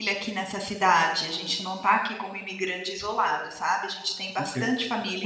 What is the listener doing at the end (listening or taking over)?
taking over